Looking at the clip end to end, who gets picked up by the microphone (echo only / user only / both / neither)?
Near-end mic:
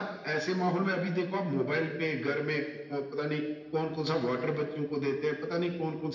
echo only